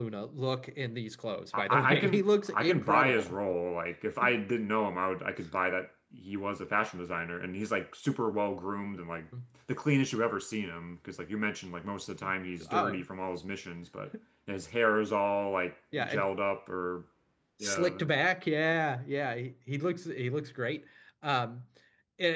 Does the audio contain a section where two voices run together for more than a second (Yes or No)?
Yes